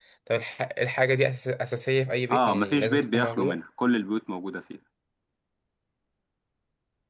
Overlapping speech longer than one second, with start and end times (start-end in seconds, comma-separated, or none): 2.3-3.6